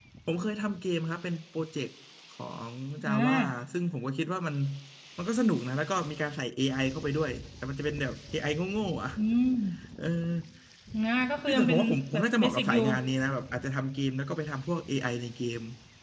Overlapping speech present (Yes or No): Yes